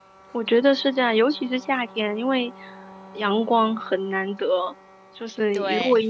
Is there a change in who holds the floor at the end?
No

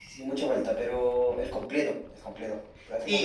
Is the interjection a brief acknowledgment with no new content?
No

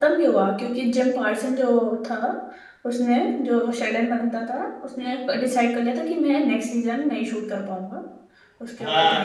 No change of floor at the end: No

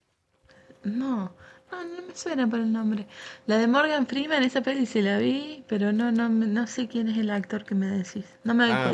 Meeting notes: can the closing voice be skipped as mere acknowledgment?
No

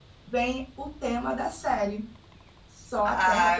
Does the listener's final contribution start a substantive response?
Yes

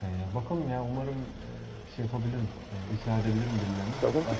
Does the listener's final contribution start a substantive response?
Yes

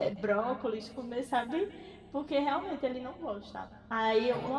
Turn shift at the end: No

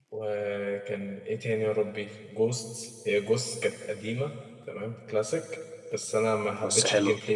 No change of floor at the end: Yes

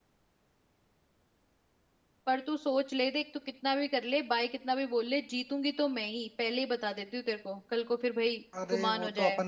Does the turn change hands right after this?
Yes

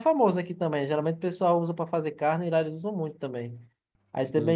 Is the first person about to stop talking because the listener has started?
No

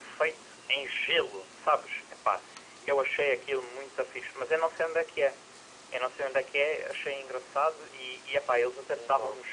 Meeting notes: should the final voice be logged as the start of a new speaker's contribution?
No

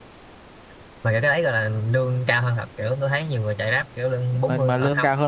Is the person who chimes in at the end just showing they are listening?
No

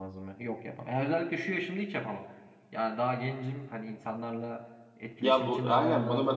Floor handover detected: Yes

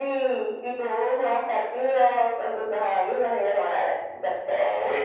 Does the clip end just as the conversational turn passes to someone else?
Yes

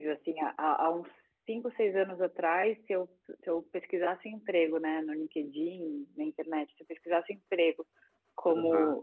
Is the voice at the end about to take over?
No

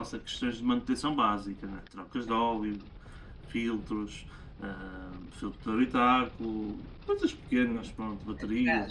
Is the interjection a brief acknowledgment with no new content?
No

